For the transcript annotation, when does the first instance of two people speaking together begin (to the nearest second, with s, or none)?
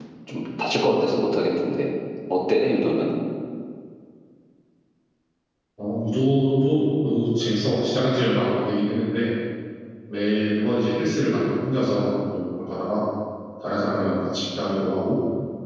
none